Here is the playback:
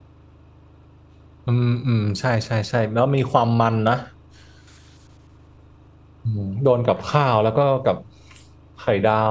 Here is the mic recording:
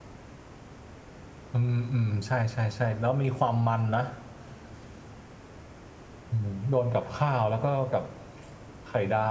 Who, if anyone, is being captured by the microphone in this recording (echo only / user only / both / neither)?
echo only